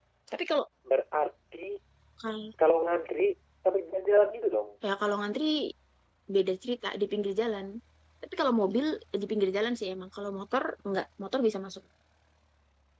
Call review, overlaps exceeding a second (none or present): none